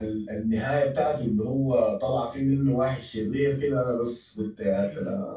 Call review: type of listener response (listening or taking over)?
taking over